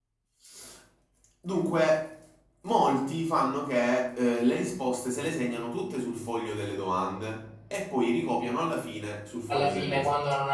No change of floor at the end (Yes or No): No